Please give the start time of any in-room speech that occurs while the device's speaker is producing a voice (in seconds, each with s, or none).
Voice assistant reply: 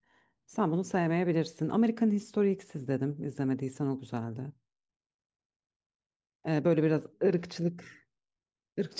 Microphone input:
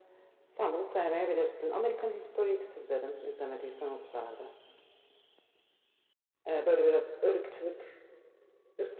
none